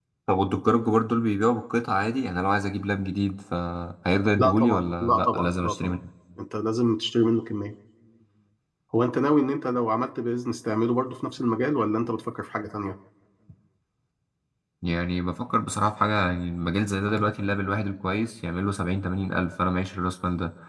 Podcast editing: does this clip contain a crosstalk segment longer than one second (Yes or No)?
Yes